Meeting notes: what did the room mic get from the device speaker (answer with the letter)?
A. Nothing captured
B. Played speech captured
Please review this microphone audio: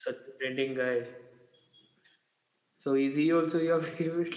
A